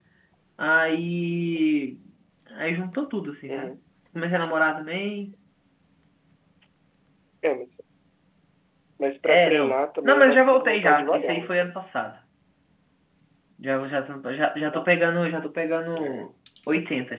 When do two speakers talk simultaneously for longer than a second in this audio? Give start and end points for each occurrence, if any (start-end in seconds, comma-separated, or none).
9.2-11.5